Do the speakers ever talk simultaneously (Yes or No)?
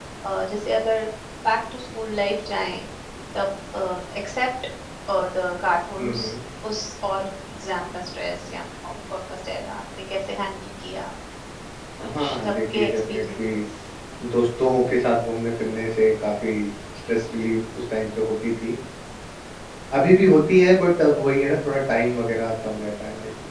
Yes